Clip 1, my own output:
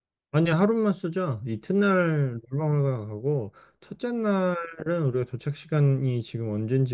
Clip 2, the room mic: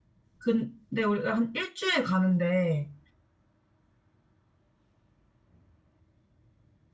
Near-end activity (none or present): present